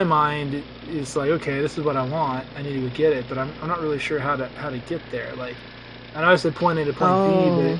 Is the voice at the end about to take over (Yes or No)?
No